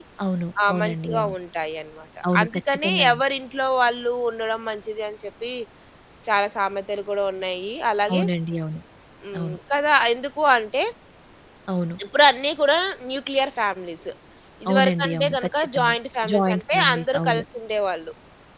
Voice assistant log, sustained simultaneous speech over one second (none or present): present